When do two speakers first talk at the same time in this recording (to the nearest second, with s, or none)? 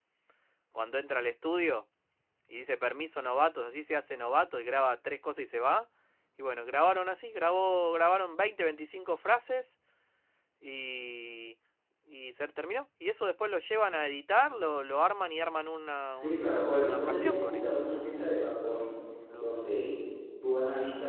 16 s